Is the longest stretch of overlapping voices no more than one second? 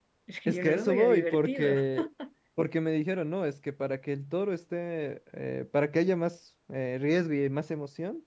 No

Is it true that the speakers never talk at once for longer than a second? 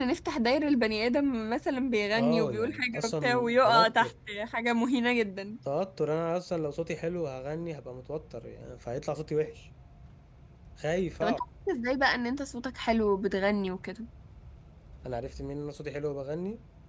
No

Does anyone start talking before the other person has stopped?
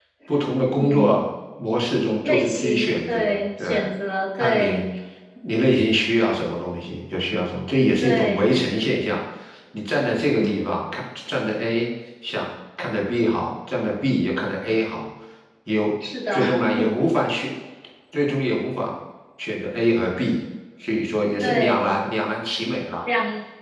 Yes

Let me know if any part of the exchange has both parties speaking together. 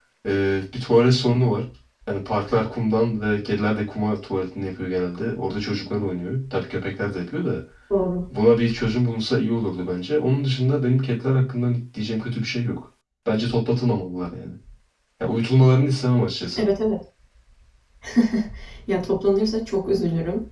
No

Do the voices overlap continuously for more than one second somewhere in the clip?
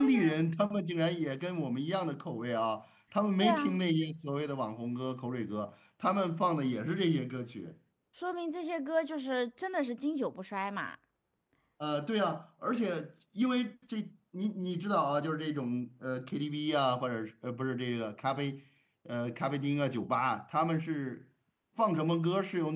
No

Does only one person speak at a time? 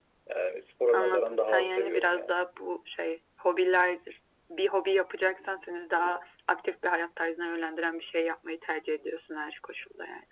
No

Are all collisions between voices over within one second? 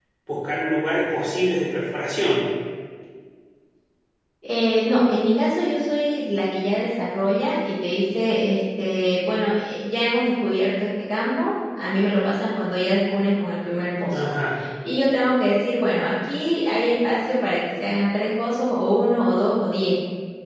Yes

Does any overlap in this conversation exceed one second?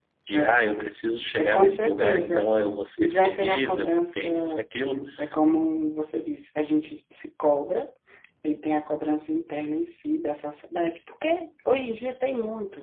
Yes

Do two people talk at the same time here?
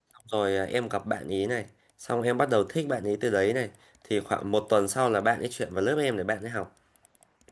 No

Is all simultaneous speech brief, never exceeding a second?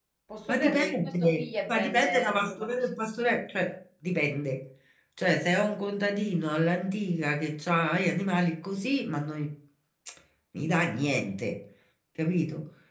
No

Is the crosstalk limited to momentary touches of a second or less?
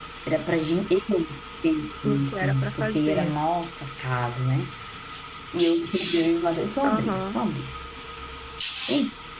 No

